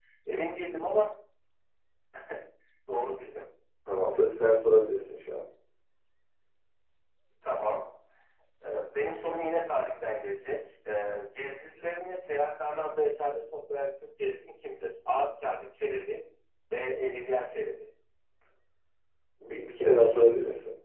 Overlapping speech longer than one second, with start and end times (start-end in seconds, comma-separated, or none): none